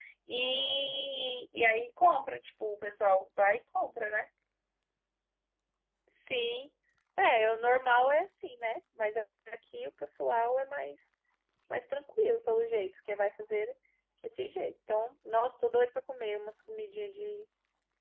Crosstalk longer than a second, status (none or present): none